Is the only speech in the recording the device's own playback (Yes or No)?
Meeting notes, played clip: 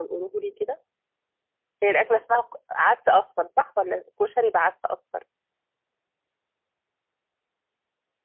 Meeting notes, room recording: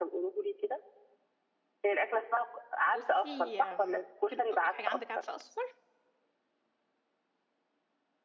No